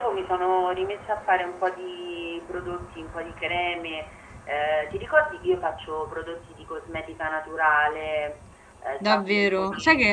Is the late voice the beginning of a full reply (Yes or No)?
Yes